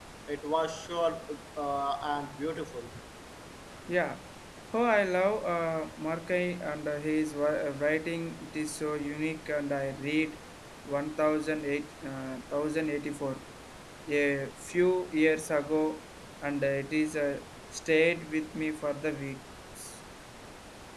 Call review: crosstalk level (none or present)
none